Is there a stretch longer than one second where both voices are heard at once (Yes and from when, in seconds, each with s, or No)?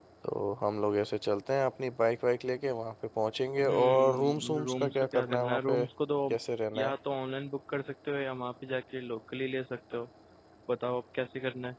Yes, from 3.6 s